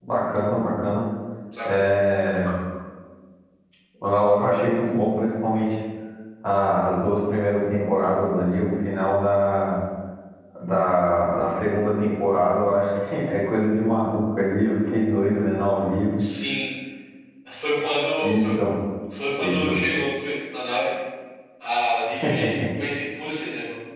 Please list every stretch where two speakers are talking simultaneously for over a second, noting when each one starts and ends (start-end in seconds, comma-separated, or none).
none